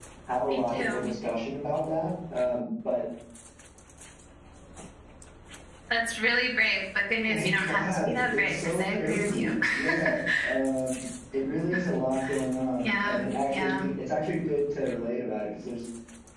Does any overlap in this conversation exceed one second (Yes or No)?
Yes